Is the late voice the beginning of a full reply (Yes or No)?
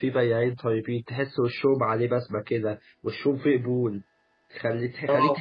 No